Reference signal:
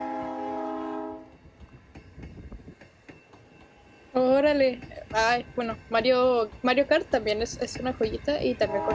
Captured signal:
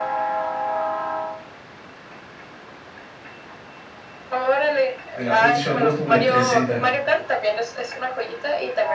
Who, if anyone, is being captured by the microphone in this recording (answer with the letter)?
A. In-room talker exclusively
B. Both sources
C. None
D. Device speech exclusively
B